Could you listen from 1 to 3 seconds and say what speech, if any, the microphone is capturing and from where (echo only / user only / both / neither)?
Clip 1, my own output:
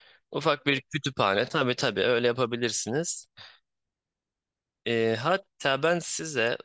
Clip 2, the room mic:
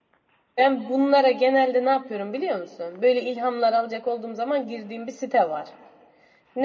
user only